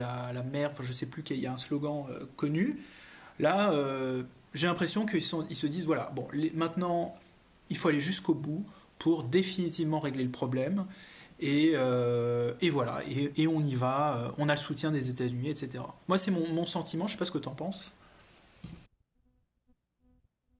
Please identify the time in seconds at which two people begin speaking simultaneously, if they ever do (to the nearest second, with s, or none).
none